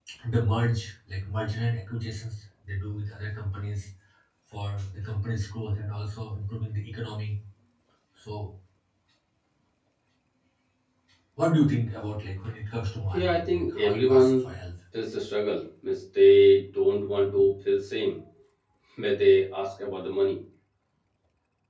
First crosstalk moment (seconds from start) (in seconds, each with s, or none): 13.0 s